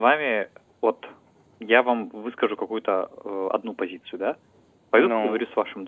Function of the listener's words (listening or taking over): listening